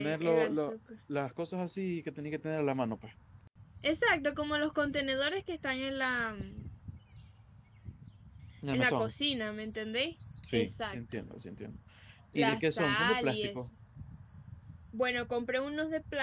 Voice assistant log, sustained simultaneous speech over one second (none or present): present